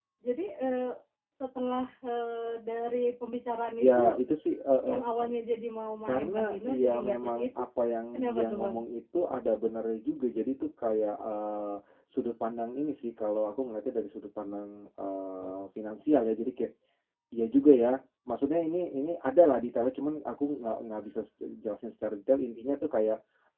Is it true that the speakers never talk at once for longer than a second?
No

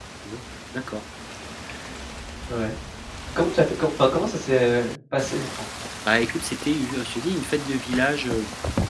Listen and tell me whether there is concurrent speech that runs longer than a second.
No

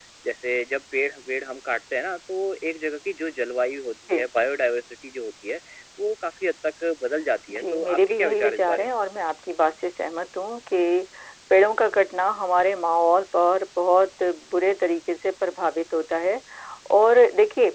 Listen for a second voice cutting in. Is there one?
Yes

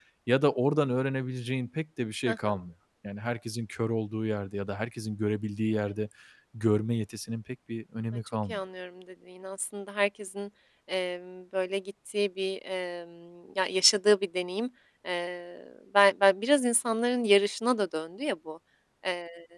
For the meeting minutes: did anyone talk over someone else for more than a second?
No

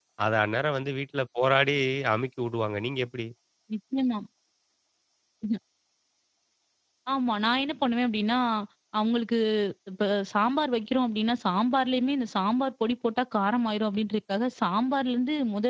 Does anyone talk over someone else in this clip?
No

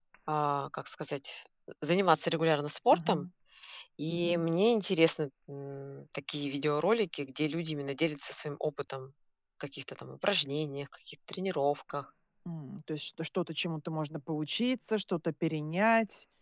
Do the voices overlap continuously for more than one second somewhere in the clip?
No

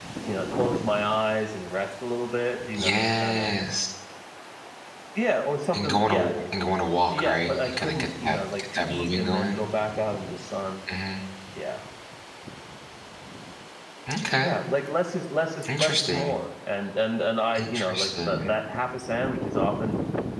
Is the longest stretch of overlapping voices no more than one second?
No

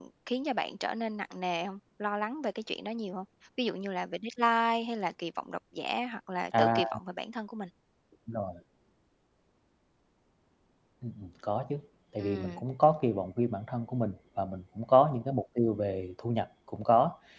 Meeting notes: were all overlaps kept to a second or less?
Yes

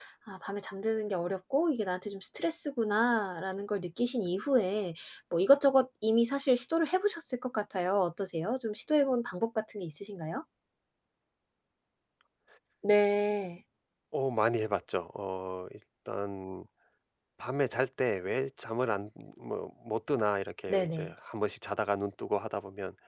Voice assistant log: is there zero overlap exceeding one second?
Yes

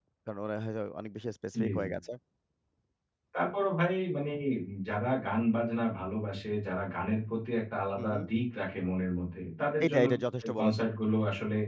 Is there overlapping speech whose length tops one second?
No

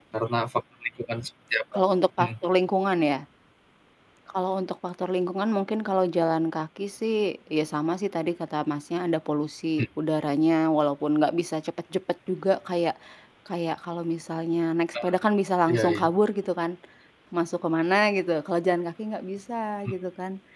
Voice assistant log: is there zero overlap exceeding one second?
Yes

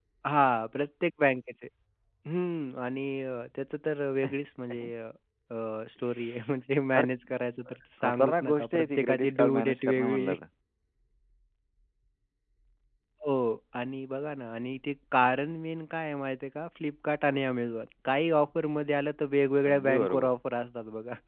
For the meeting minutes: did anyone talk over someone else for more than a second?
Yes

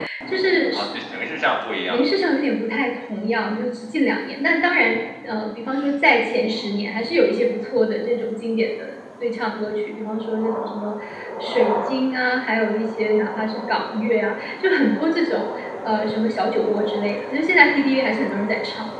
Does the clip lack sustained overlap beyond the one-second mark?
Yes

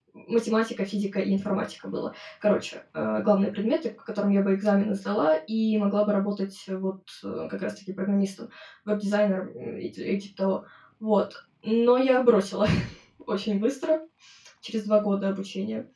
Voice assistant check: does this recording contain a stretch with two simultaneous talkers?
No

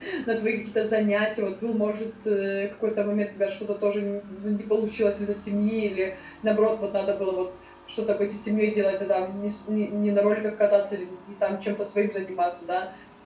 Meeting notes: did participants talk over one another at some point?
No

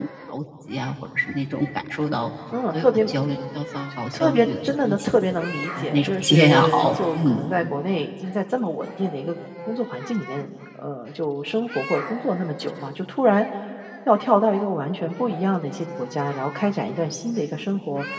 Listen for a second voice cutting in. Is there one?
Yes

